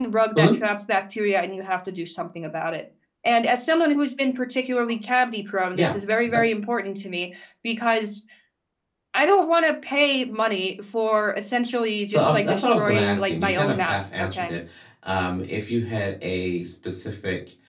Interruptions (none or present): present